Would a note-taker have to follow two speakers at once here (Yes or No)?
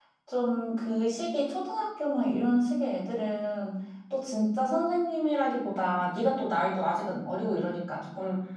No